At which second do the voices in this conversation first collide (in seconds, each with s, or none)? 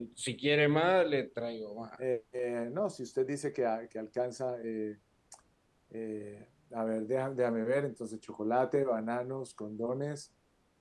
none